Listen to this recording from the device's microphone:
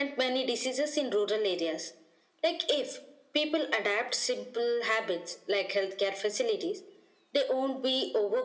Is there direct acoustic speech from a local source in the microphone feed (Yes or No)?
No